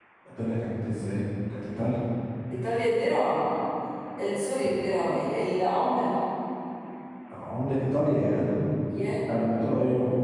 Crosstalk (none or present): none